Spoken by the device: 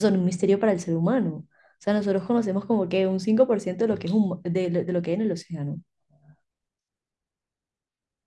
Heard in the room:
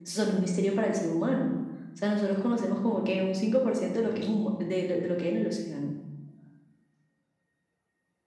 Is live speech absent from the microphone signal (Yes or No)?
Yes